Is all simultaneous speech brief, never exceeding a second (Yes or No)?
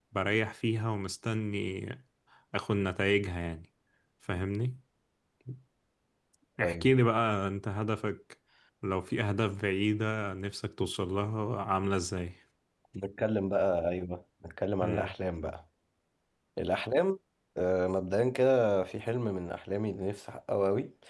Yes